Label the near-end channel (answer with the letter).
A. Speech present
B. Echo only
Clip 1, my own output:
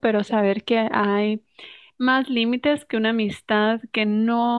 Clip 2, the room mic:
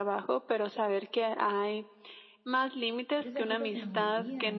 A